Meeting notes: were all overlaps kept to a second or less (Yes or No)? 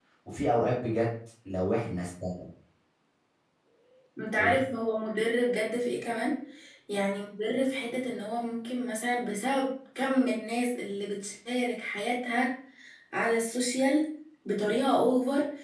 Yes